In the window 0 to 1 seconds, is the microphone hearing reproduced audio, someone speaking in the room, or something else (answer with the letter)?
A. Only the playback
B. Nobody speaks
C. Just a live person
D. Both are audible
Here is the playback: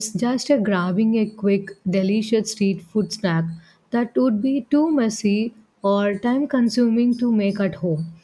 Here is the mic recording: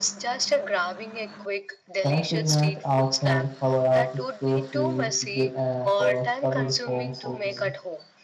A